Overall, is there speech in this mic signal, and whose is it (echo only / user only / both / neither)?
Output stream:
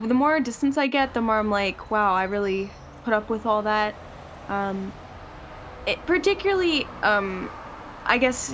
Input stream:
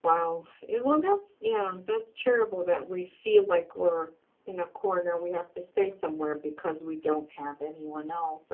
user only